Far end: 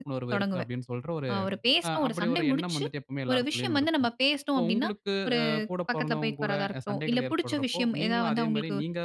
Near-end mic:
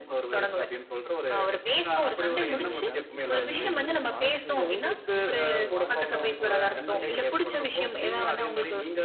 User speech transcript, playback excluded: உங்களுடைய கருத்துக்கள்லா உங்களுடைய வாழ்க்கையில எப்படி நம்மளுடைய வாழ்க்கையில வந்துட்டு ஒரு சண்டை,

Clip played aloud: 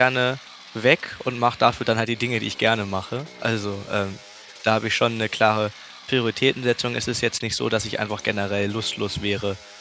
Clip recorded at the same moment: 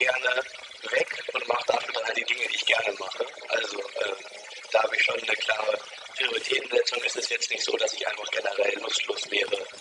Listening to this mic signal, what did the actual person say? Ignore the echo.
none

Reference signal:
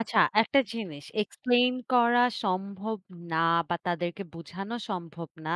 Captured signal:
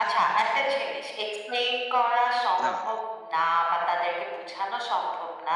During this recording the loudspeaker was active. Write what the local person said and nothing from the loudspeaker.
না।

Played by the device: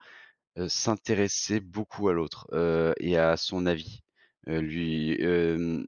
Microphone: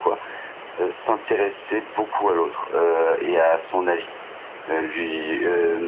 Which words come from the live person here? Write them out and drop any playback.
none

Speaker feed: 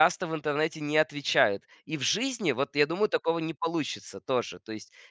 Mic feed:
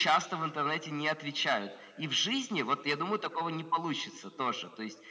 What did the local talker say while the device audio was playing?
none

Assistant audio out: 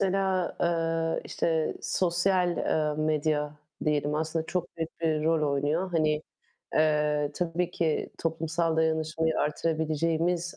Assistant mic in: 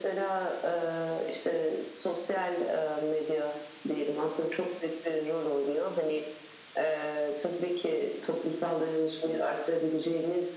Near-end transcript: none

